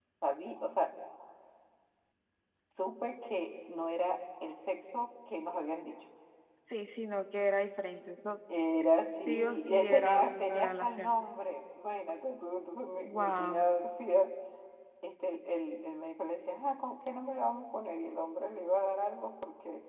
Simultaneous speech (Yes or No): Yes